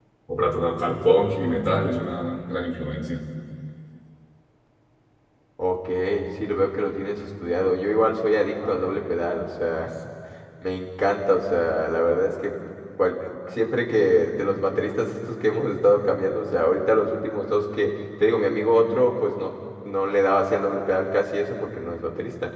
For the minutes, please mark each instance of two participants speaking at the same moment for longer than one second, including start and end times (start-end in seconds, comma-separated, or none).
none